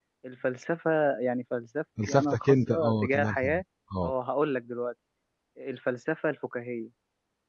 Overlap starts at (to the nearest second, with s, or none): 2 s